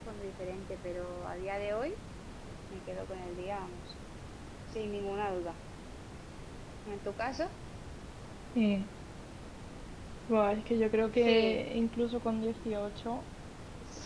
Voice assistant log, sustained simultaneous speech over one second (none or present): none